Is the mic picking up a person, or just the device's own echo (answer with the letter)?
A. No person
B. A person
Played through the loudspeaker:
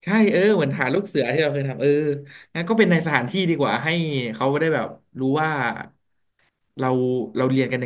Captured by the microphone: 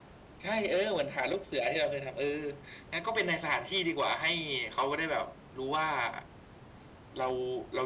A